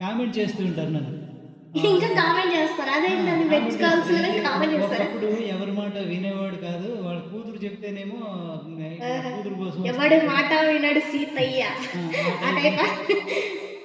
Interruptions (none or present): present